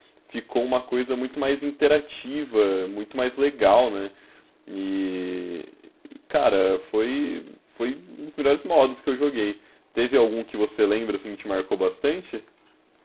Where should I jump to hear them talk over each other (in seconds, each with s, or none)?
none